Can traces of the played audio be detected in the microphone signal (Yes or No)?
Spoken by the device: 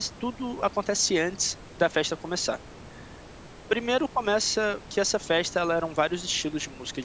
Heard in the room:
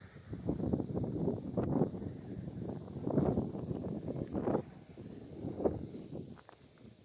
No